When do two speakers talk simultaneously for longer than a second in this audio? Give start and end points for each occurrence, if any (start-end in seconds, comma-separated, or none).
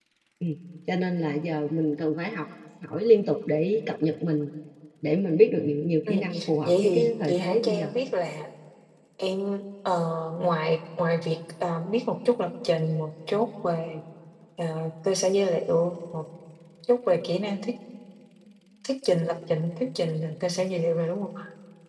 6.7-7.9